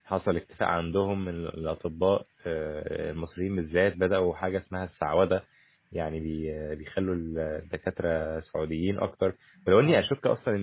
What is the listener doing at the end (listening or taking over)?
listening